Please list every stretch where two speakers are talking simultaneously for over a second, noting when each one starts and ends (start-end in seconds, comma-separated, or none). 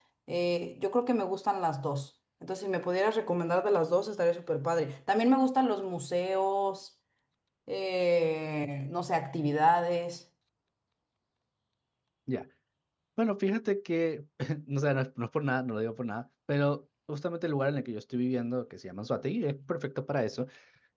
none